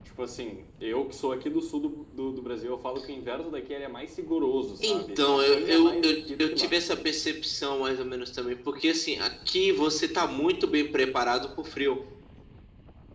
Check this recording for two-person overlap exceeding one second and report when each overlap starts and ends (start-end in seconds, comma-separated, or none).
4.9-6.7